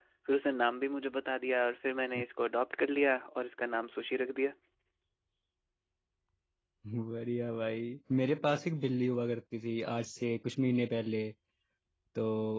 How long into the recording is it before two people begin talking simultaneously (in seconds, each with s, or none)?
none